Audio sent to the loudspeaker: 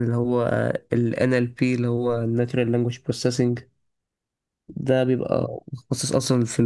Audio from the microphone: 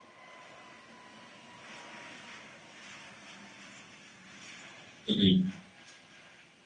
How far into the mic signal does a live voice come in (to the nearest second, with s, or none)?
5 s